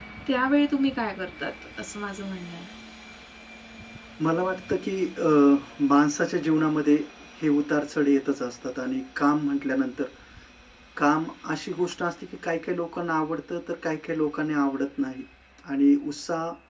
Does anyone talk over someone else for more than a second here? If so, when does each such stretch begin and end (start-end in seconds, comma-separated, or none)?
none